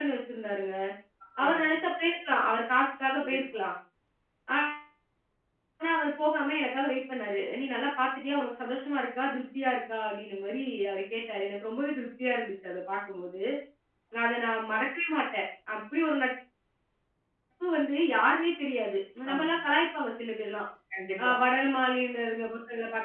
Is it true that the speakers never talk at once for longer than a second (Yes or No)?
Yes